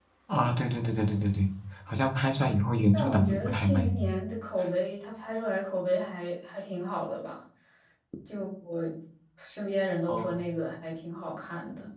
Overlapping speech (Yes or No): Yes